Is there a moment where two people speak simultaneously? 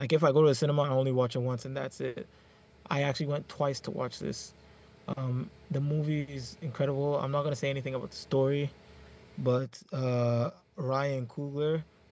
No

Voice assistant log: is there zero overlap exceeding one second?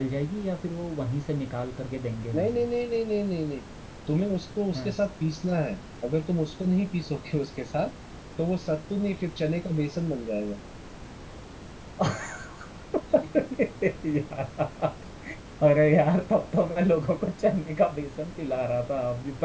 Yes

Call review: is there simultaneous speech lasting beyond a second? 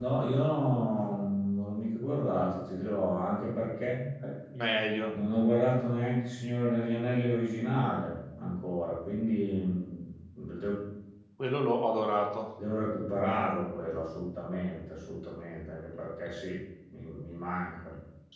No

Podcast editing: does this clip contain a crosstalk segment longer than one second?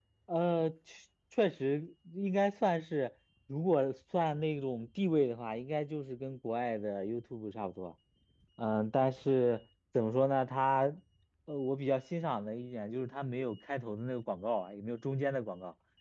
No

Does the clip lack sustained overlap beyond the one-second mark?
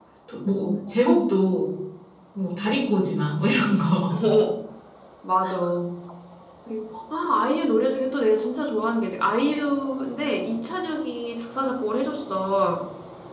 Yes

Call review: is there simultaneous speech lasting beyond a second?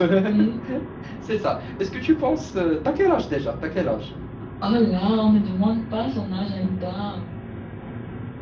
No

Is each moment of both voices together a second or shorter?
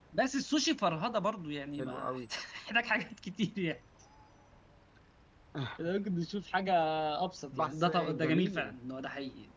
No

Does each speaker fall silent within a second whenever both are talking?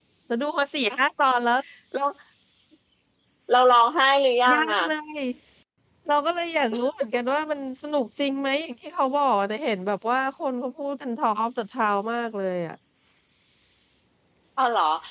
Yes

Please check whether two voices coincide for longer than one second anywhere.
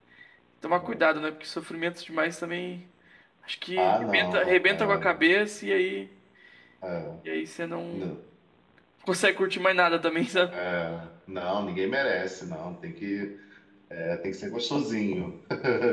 Yes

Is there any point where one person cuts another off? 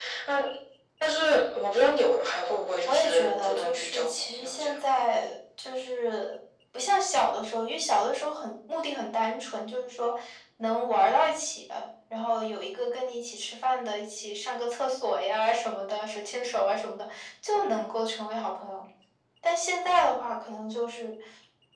Yes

